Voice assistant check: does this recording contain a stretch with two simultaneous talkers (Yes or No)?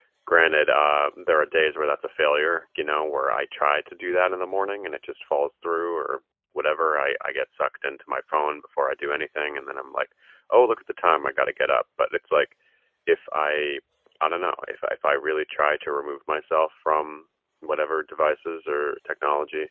No